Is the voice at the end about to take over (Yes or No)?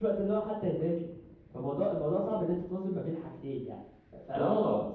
Yes